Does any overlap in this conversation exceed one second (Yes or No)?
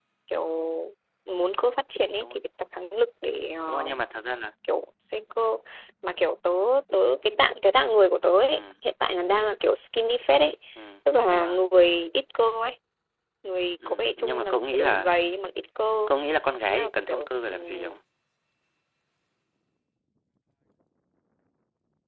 Yes